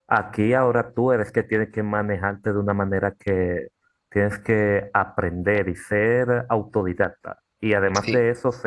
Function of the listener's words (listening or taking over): listening